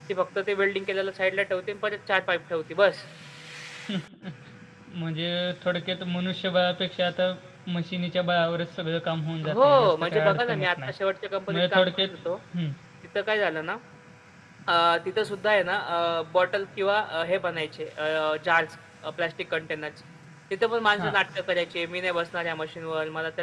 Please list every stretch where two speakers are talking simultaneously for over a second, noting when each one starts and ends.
9.4-10.9

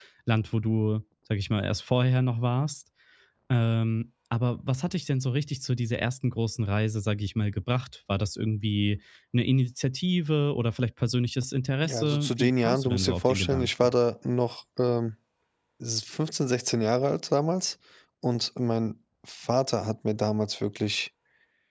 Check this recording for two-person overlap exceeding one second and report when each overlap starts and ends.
11.8-13.9

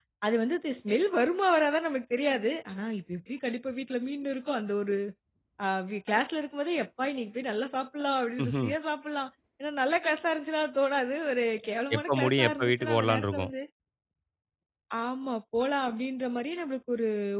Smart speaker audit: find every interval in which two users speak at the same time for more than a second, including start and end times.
12.0-13.5

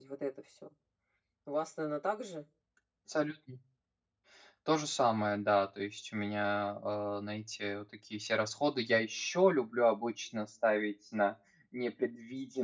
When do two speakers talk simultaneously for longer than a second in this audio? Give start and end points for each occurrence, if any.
none

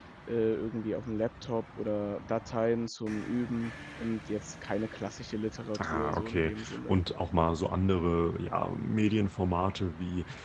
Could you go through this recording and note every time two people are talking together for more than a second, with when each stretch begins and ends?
5.8-7.0

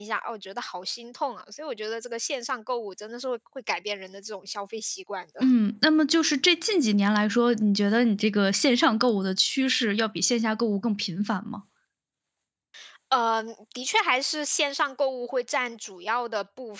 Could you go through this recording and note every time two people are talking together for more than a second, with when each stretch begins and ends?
none

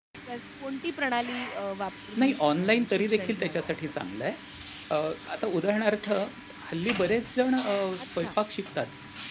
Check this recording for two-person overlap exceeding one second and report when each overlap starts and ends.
2.2-3.8

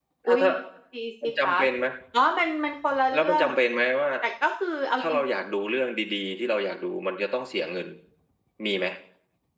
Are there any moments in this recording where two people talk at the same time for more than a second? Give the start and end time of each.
none

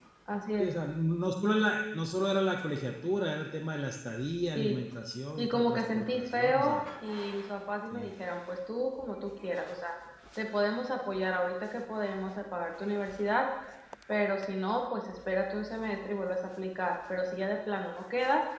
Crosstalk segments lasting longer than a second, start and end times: 5.4-6.8

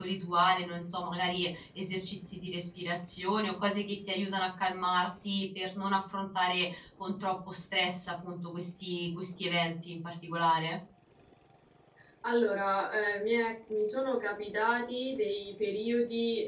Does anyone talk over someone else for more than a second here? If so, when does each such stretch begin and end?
none

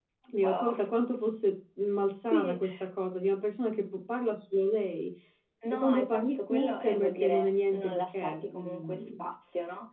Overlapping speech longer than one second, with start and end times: 5.7-9.2

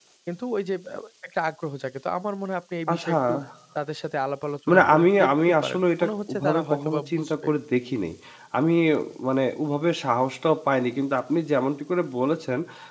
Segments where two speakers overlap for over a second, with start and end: 4.7-7.5

